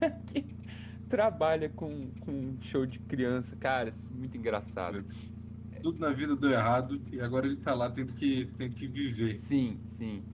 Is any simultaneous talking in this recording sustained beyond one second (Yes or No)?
No